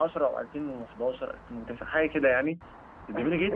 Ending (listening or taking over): taking over